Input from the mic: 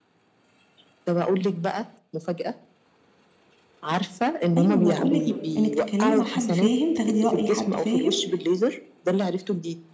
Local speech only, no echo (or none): ايوه ما انا بقول لك انك تتكلمي مع حد فاهم تاخدي رأي حد فاهم